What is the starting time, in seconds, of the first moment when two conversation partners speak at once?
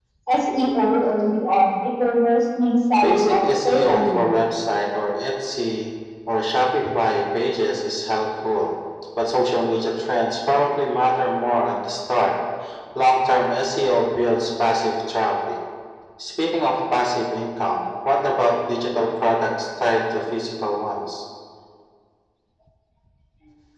3.0 s

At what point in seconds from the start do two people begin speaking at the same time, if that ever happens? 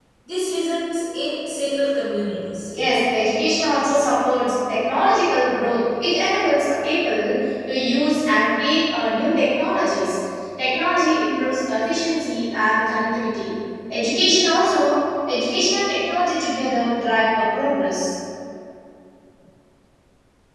none

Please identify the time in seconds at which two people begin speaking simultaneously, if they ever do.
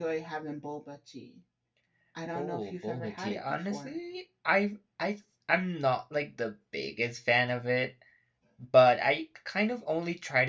2.4 s

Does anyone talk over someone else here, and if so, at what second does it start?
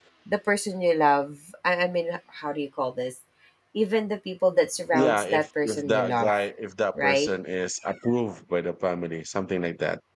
4.9 s

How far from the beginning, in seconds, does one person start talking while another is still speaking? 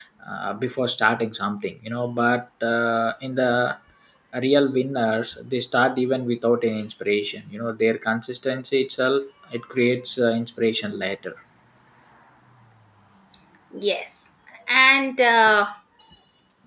none

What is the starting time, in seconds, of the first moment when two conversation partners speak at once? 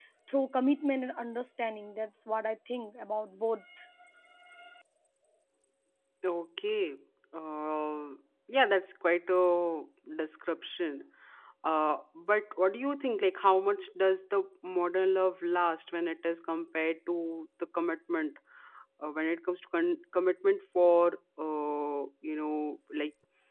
none

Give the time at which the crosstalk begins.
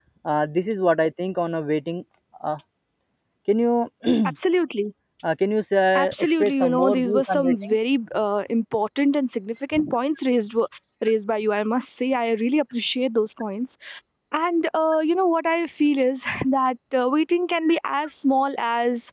6.0 s

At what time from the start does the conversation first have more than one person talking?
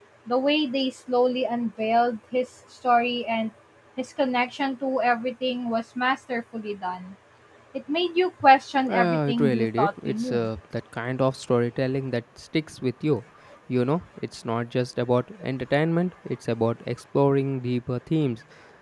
8.9 s

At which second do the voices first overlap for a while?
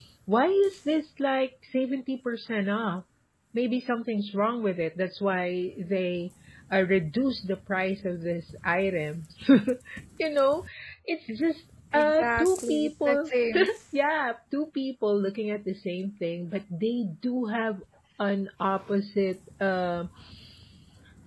11.9 s

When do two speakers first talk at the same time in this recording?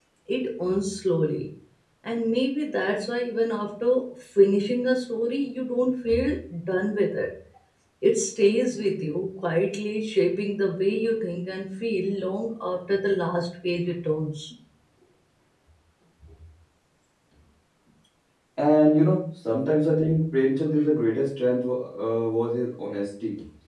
none

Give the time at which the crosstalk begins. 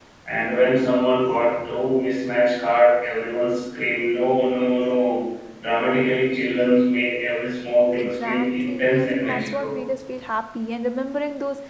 8.0 s

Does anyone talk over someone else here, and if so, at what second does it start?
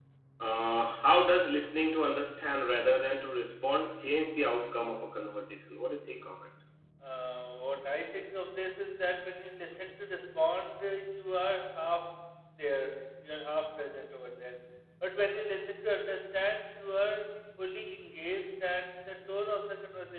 none

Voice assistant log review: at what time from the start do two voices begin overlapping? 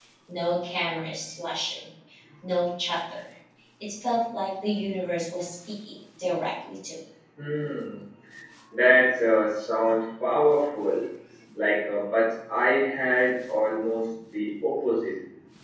none

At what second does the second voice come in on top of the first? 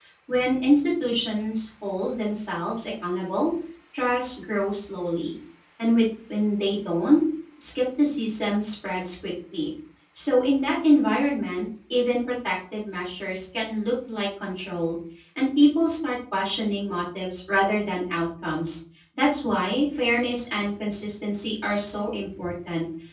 none

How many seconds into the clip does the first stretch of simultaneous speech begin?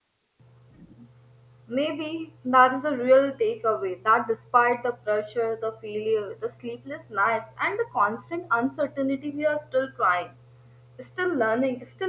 none

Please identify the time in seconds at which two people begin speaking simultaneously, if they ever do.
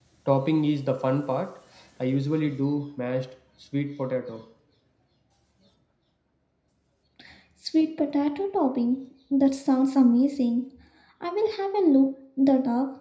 none

